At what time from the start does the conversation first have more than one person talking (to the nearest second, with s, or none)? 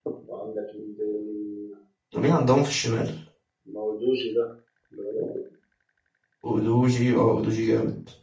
none